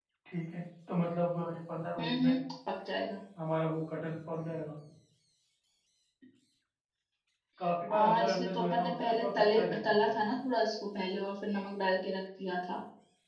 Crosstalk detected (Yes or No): Yes